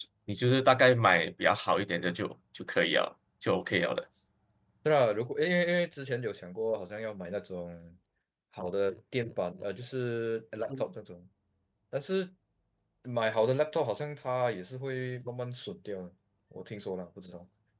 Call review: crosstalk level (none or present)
none